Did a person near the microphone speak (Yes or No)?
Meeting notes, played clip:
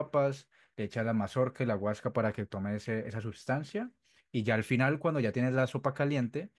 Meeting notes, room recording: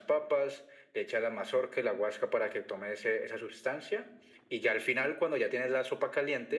No